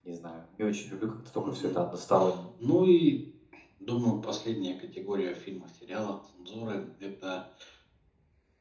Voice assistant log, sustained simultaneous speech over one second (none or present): none